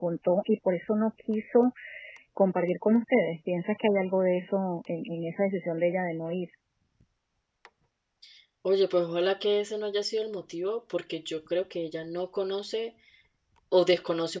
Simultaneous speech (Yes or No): No